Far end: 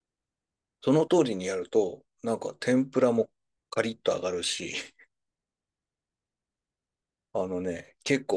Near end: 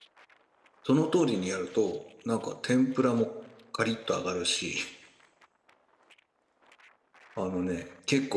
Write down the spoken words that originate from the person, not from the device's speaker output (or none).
none